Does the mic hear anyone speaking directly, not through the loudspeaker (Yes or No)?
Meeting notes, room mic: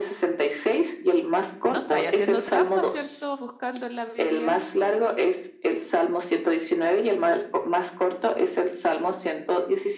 Yes